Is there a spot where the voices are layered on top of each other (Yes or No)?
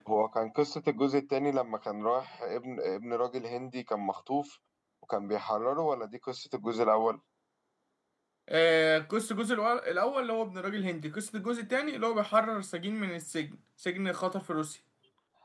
No